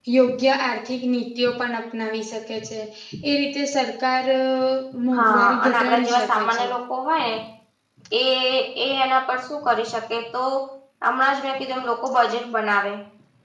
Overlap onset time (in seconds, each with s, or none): 5.1 s